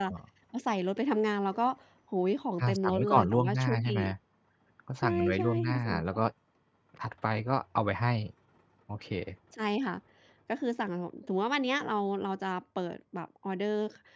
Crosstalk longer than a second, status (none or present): present